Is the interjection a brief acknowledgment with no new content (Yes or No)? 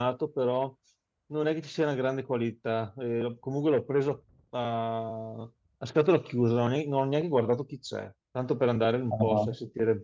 Yes